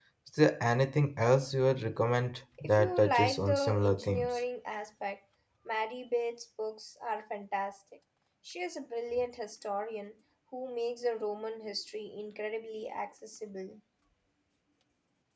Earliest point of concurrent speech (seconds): 2.6 s

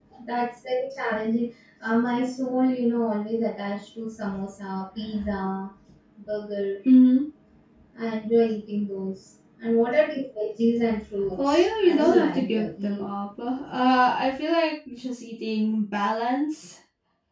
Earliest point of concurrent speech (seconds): 11.4 s

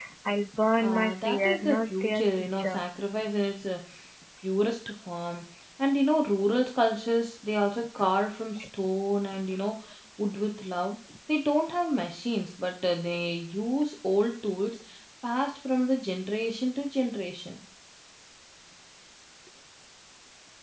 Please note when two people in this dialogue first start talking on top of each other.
0.8 s

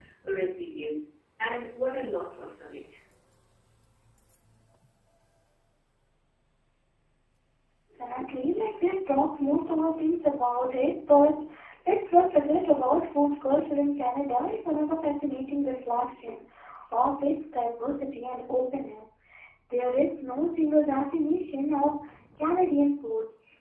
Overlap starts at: none

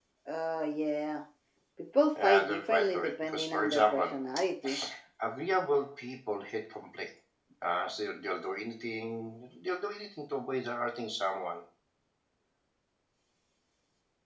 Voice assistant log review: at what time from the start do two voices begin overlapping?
2.2 s

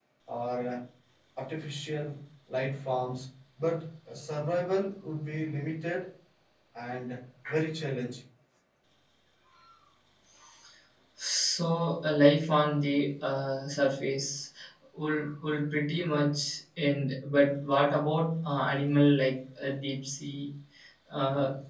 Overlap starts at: none

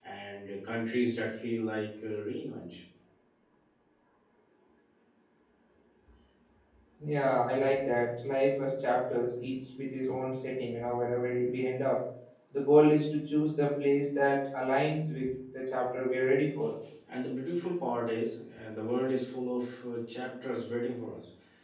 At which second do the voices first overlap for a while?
none

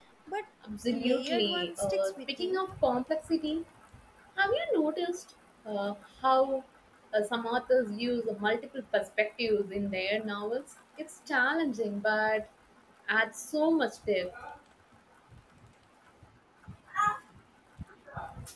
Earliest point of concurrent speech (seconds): 0.9 s

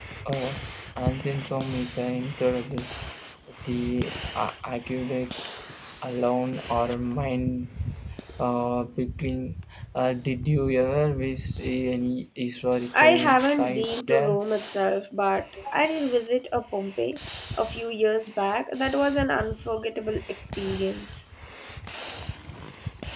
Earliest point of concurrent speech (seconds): 12.9 s

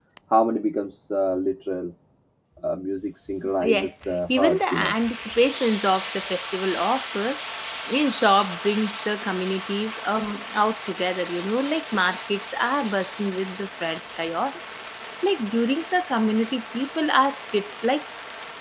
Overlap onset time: 3.6 s

